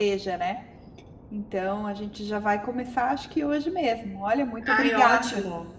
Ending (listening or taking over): taking over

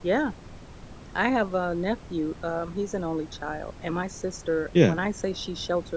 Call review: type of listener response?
listening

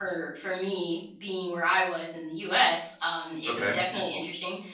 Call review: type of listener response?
listening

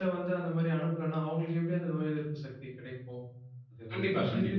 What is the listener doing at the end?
listening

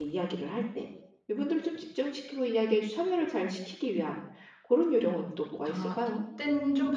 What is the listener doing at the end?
taking over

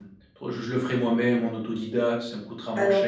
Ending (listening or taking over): taking over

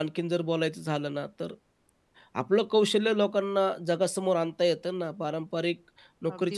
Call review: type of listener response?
listening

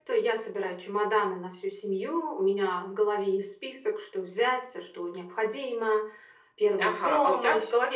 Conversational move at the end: taking over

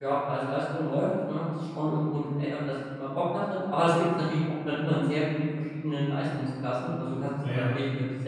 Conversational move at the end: listening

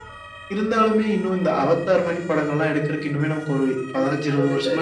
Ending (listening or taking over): taking over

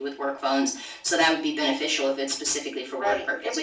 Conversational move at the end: taking over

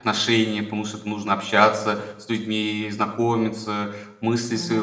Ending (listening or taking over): listening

